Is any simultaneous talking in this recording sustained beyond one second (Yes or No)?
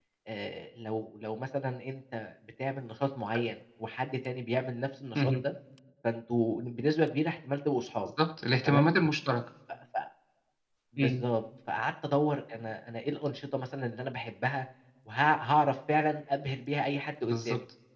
No